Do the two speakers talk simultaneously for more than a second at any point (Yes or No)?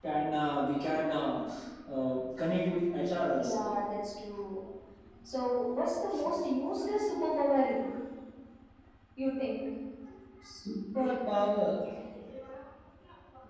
No